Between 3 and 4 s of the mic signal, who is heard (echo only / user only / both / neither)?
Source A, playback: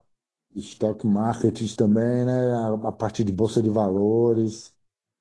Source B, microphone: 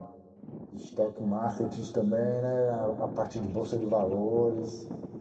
echo only